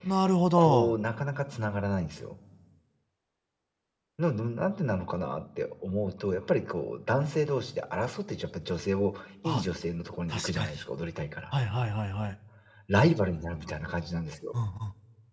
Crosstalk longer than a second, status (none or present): none